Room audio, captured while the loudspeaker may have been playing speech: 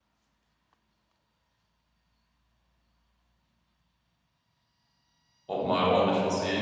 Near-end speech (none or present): present